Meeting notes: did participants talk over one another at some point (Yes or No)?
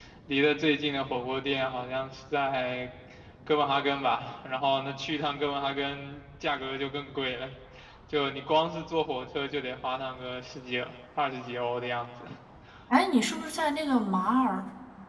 No